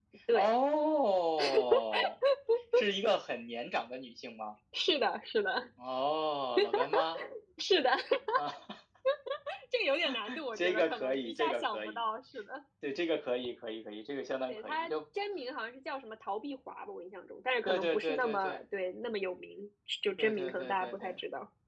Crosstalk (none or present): present